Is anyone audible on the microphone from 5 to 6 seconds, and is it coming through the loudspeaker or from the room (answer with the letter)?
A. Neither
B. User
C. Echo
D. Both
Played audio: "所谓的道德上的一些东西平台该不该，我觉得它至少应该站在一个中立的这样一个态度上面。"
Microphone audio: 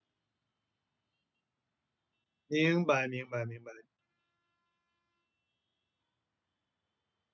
A